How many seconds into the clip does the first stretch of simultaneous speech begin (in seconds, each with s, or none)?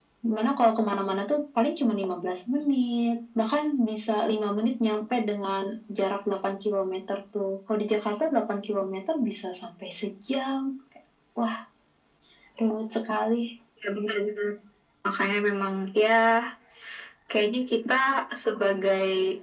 none